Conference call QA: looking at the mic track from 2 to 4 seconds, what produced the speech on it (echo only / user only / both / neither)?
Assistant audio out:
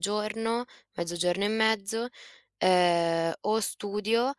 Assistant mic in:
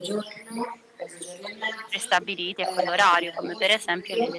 both